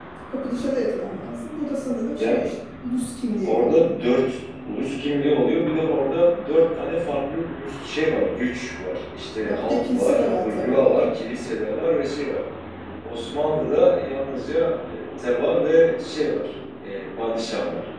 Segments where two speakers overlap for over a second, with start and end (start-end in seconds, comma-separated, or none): 9.4-11.1